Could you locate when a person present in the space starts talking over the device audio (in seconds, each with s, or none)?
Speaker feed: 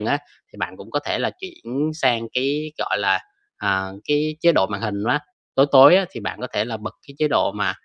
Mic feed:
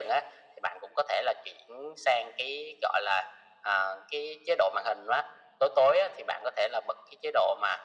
none